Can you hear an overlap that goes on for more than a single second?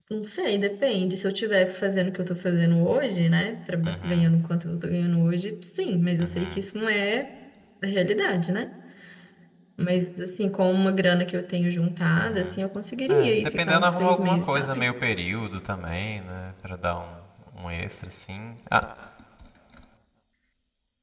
Yes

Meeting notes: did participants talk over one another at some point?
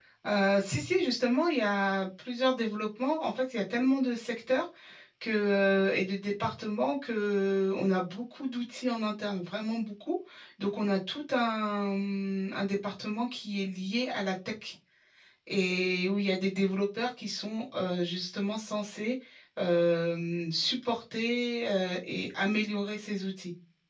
No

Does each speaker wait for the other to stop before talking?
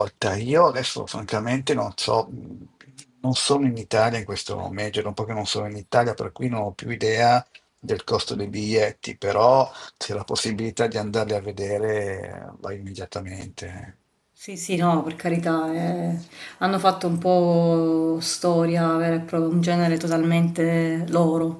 Yes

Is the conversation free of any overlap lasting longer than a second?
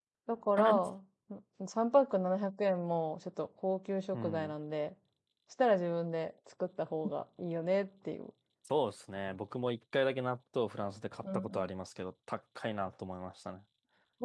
Yes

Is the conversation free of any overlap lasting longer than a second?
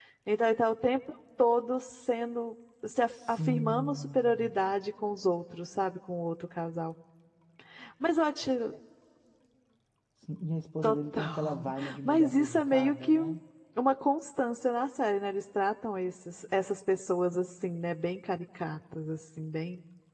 No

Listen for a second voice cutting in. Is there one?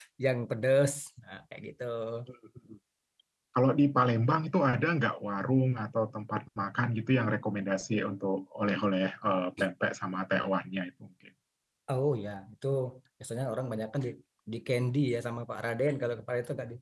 No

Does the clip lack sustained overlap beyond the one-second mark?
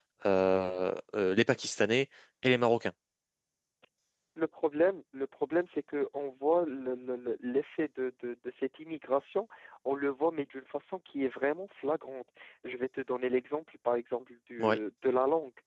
Yes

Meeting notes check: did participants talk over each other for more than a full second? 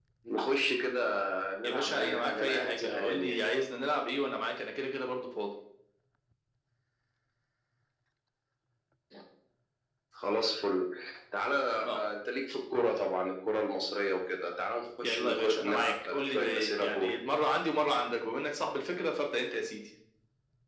Yes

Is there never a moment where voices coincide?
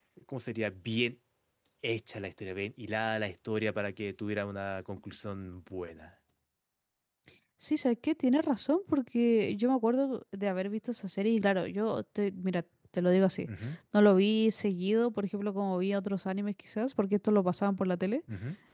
Yes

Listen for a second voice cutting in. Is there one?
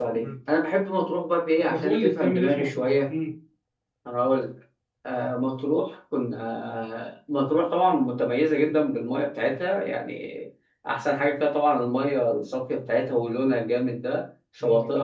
Yes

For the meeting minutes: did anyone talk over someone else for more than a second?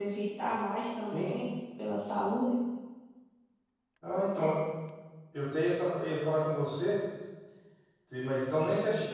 No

